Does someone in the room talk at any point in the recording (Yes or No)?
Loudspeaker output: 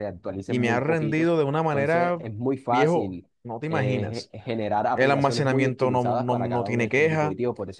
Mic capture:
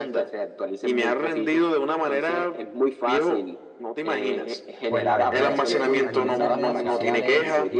Yes